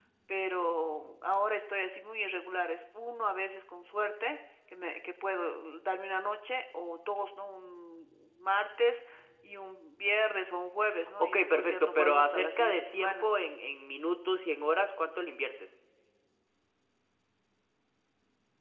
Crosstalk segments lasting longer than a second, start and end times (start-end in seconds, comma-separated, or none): 11.2-13.3